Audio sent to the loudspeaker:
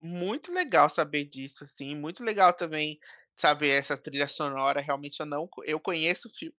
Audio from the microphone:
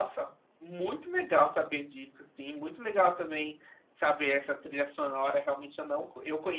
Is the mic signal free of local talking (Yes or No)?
Yes